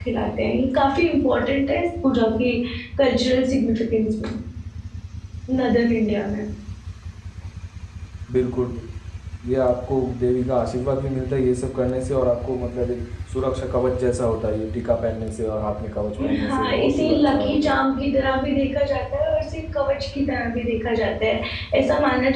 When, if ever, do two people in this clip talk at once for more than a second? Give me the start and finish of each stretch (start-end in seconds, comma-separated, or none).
16.4-17.8